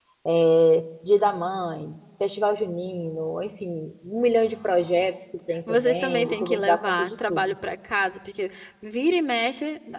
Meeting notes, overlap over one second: present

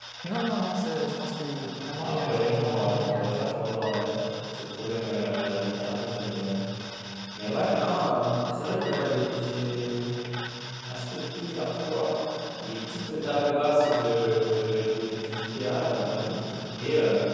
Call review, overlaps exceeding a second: present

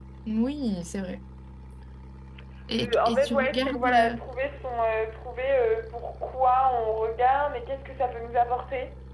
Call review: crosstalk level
present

